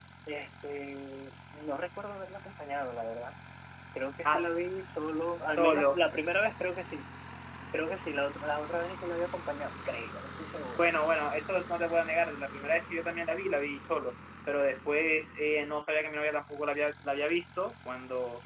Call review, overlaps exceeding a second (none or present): none